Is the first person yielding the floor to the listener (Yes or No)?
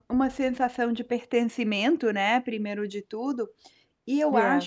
No